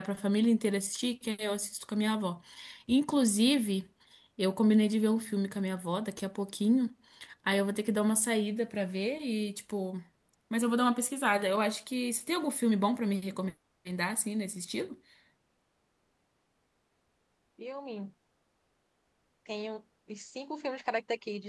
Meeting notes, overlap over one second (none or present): none